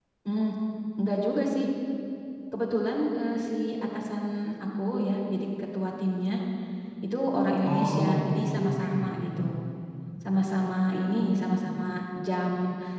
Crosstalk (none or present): present